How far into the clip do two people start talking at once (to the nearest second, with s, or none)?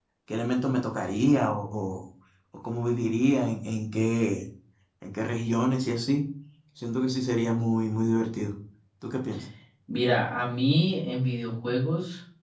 none